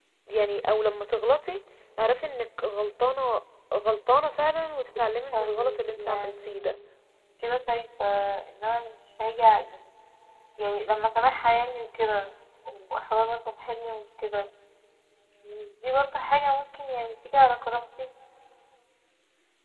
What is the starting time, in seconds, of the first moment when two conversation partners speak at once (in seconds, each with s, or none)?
5.3 s